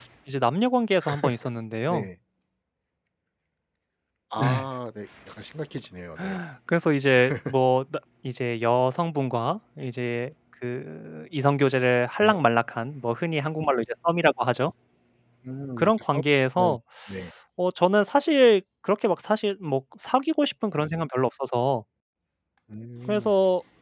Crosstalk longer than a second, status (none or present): none